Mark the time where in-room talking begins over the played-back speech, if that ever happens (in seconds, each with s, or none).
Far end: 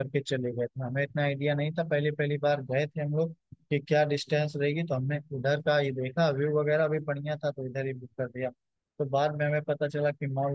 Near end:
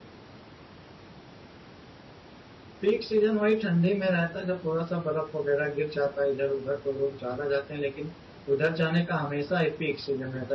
2.8 s